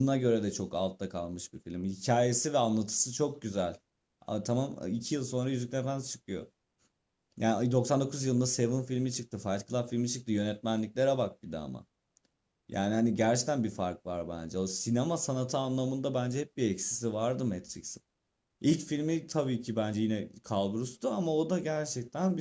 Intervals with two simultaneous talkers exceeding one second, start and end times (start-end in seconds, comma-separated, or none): none